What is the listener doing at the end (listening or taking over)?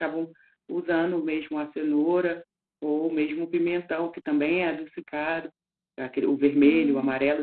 listening